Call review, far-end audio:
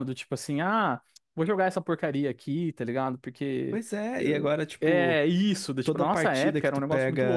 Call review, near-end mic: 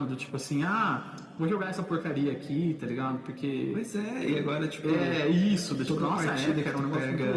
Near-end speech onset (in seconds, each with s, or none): none